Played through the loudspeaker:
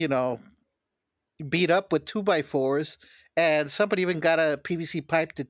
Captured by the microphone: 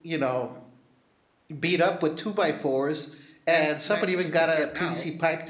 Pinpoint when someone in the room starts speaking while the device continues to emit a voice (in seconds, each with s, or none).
3.5 s